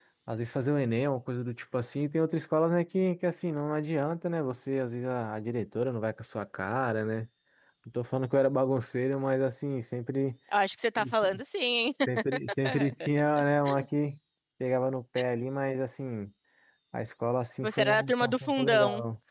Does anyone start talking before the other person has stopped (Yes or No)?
Yes